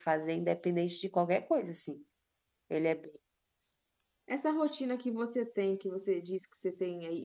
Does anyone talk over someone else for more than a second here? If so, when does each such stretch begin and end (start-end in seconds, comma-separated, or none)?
none